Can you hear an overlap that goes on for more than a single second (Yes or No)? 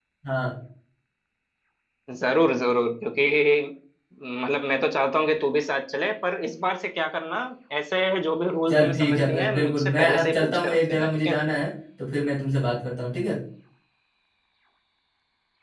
Yes